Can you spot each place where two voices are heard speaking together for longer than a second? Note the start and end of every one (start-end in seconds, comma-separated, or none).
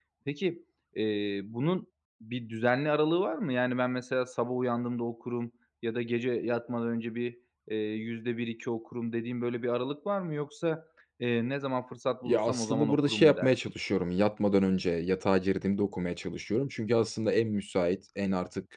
12.2-13.5